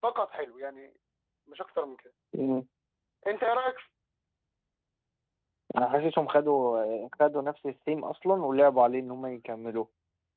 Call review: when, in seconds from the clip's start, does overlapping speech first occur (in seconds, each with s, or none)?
none